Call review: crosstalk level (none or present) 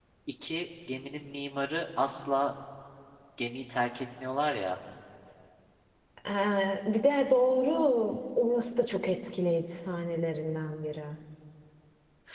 none